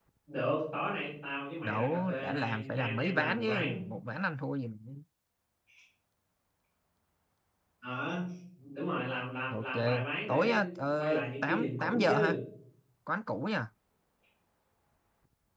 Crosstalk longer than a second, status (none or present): present